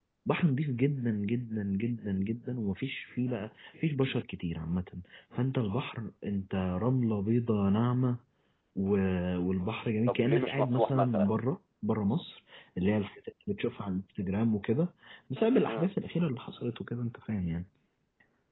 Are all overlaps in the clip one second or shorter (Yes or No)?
No